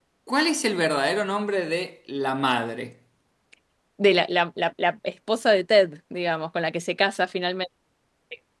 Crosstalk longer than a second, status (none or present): none